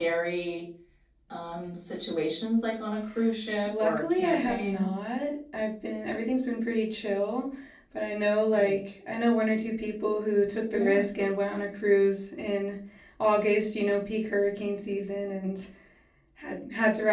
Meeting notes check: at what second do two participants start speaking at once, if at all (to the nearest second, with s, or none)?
4 s